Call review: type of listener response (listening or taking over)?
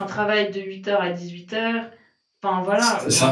taking over